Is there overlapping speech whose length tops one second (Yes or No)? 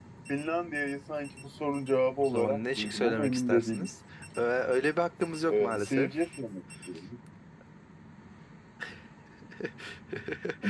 Yes